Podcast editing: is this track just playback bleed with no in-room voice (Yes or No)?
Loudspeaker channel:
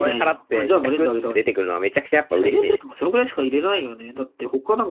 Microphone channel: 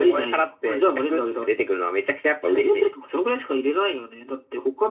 Yes